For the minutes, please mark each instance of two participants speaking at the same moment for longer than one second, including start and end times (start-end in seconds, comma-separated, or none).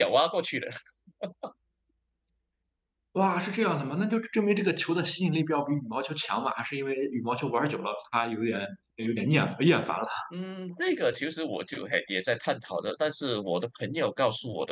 none